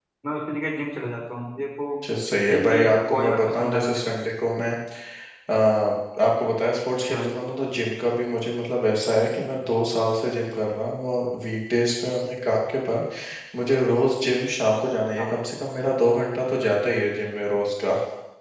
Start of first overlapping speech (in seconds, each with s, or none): 2.5 s